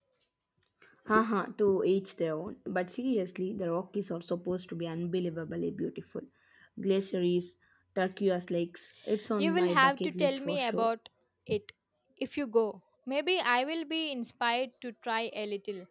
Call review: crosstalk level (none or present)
present